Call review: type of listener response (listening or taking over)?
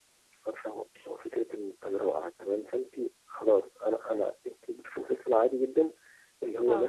listening